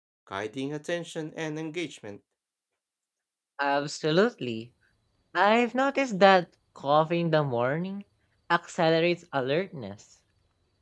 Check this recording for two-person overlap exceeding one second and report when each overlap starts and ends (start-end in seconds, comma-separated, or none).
none